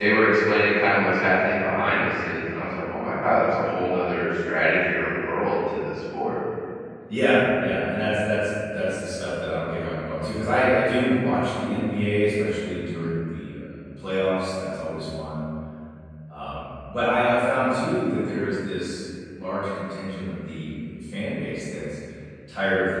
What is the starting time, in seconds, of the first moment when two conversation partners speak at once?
none

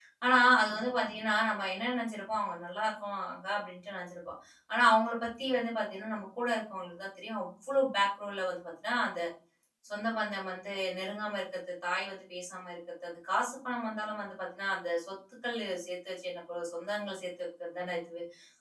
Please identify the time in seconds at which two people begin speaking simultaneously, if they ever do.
none

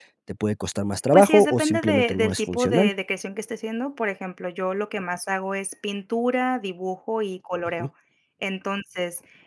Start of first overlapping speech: 1.1 s

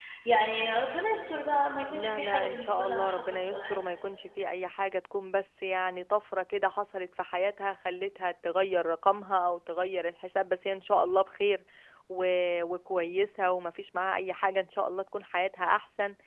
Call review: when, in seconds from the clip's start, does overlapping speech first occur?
1.9 s

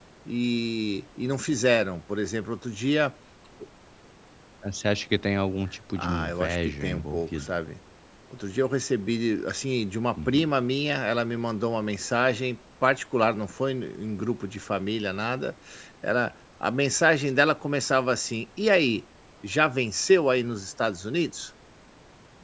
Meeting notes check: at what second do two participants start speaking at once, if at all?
6.0 s

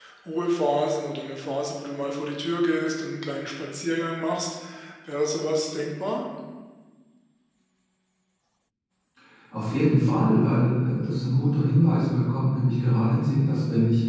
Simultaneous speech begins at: none

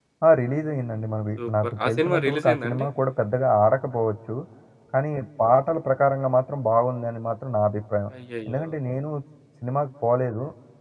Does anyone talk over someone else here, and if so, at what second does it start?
1.4 s

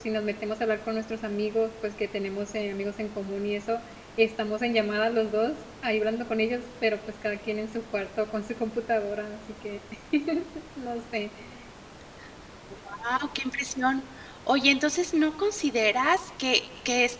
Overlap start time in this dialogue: none

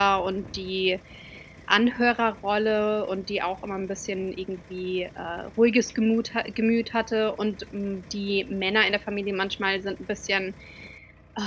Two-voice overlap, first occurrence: none

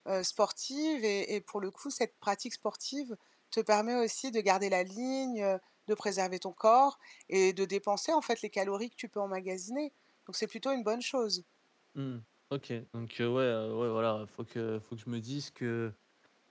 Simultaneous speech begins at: none

